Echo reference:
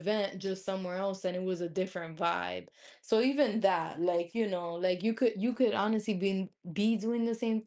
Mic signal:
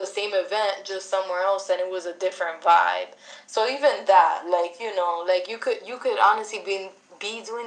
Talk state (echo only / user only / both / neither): echo only